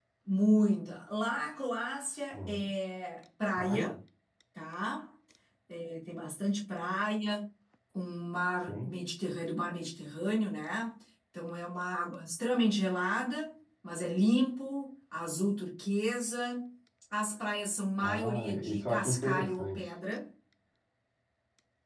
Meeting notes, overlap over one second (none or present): present